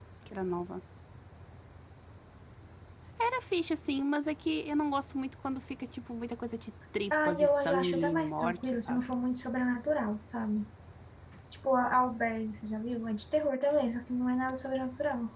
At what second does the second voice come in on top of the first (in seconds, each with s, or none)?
7.1 s